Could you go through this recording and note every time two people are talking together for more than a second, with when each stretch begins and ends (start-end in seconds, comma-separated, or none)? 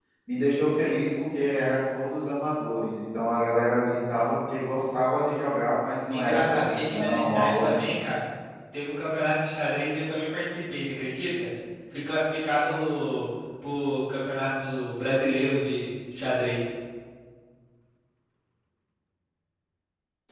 6.1-7.9